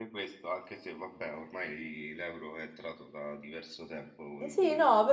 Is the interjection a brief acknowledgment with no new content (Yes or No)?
No